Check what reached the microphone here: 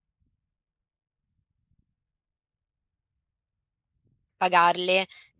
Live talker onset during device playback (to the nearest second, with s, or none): 4 s